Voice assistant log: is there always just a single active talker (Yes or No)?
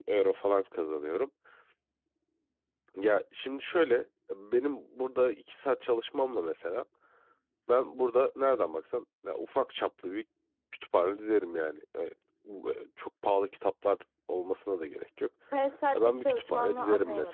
No